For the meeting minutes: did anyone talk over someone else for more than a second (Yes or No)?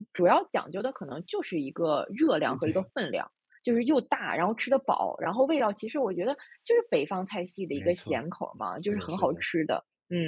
No